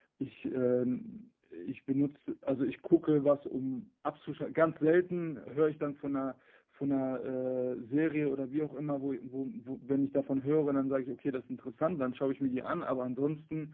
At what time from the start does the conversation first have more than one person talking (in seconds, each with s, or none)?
none